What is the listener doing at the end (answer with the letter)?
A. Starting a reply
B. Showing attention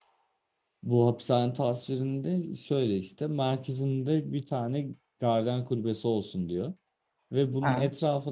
B